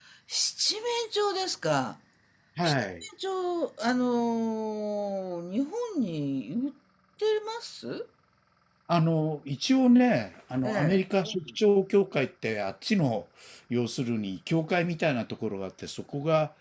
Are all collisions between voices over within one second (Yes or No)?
Yes